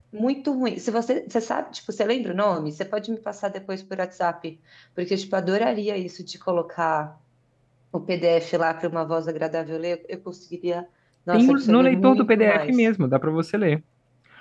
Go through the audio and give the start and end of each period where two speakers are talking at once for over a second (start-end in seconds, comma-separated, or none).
11.3-12.8